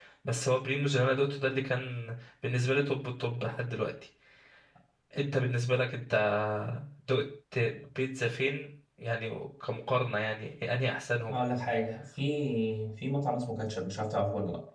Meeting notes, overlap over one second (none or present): none